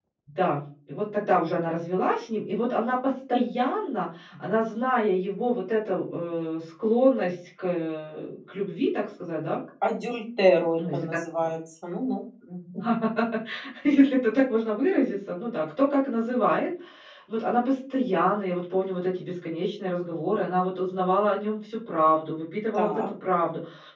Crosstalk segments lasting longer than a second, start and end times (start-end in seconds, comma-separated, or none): none